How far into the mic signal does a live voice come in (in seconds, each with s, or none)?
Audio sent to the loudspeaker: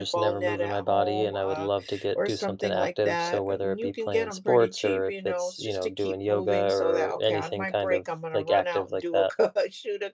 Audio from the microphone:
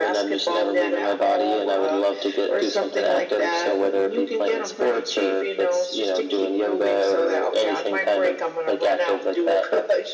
none